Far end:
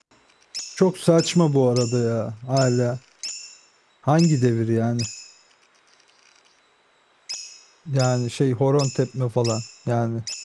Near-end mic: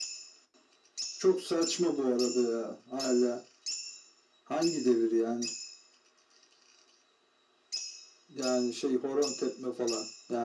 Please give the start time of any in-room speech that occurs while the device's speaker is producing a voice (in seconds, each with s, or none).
none